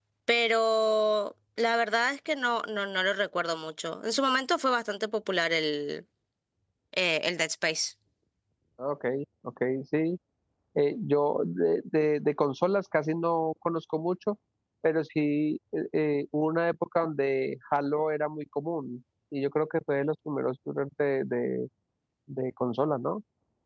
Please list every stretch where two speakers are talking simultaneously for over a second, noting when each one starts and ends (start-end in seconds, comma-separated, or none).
none